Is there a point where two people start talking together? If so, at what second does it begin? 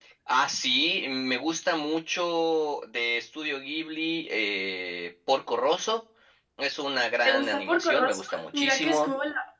7.2 s

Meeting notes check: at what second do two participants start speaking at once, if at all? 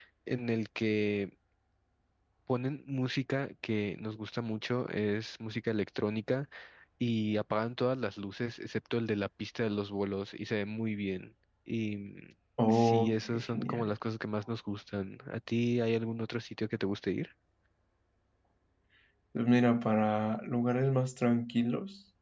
12.6 s

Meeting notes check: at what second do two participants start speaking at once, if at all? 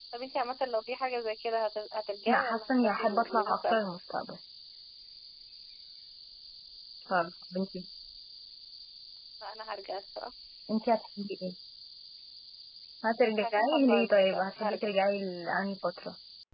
2.3 s

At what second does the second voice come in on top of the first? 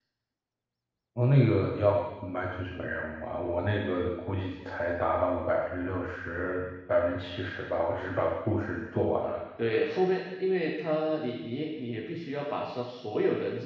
none

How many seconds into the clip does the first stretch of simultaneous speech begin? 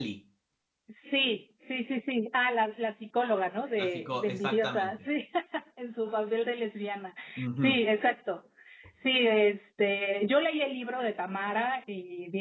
3.8 s

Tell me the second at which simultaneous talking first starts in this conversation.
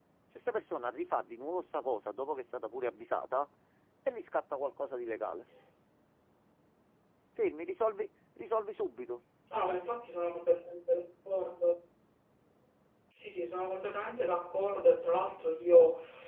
none

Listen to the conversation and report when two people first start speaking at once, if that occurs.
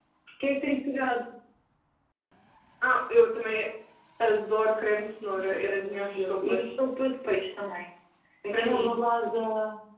5.3 s

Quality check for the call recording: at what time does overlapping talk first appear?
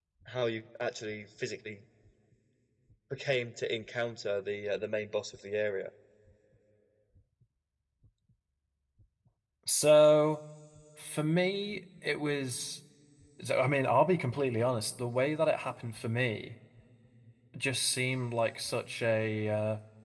none

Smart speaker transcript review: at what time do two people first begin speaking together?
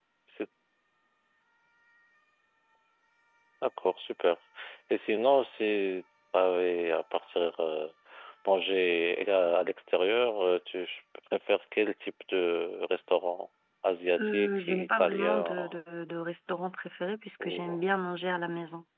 14.2 s

